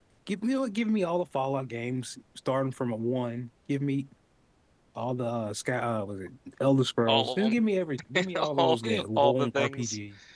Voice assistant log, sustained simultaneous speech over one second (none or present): present